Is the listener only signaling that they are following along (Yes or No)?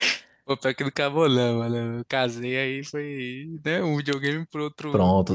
No